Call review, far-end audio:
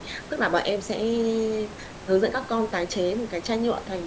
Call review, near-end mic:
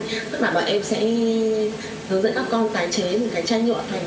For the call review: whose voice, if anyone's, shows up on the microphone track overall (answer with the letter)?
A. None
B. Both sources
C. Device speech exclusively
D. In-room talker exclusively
C